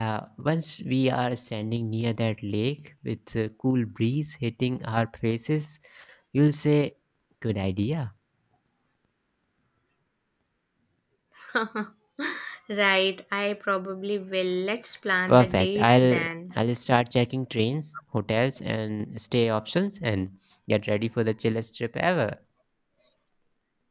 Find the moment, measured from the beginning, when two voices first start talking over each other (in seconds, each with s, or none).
15.3 s